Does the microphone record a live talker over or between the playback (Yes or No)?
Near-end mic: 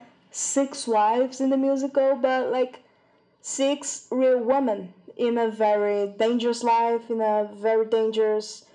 No